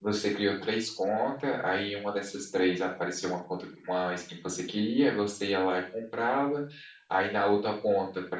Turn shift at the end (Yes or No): No